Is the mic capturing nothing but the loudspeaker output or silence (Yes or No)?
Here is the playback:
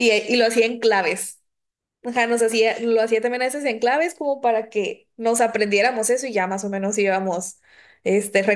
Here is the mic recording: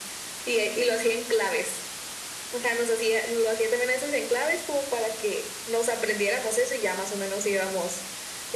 Yes